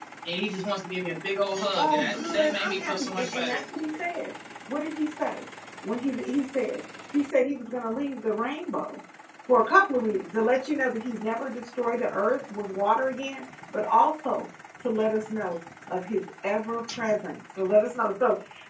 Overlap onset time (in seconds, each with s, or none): 1.7 s